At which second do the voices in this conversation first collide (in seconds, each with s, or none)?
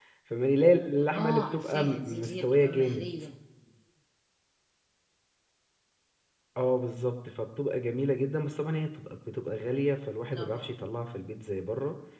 1.1 s